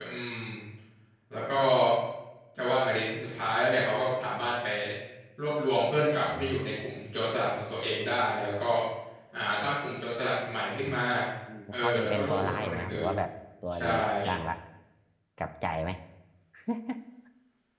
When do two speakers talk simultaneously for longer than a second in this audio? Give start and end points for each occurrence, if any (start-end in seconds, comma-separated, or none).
11.7-13.1